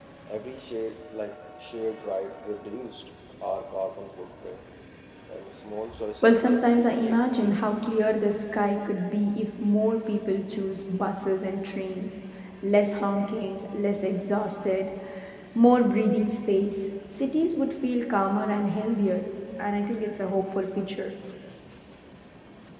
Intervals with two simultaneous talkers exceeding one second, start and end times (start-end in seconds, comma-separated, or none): 6.2-8.0